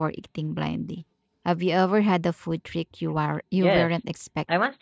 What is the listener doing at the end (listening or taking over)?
taking over